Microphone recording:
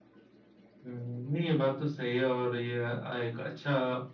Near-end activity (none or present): none